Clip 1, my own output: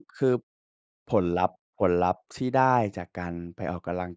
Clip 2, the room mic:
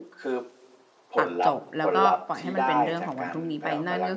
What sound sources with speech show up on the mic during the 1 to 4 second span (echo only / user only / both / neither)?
both